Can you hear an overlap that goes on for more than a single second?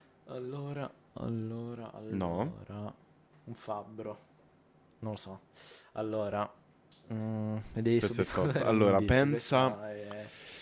Yes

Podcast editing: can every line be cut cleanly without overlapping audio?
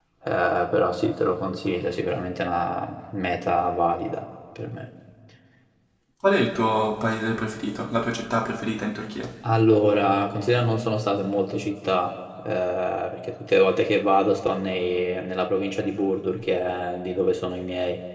Yes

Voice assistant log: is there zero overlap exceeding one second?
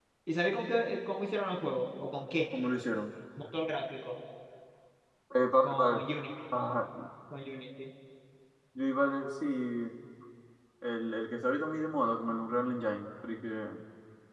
Yes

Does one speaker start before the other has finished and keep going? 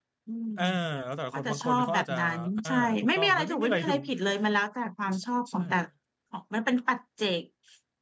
Yes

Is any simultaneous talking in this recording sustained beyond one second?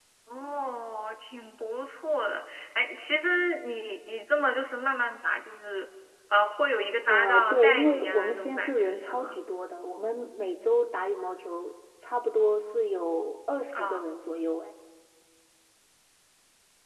Yes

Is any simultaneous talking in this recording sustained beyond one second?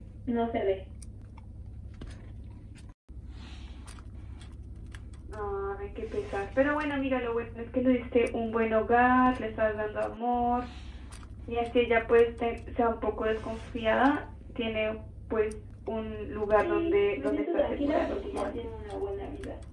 Yes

